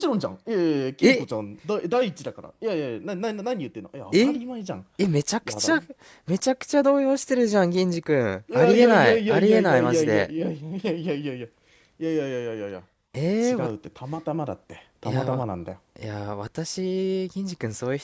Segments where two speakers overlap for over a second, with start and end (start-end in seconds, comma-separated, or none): 8.5-10.3